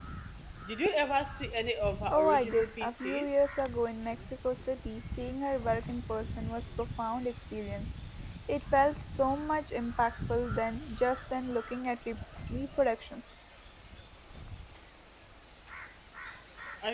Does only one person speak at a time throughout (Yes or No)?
No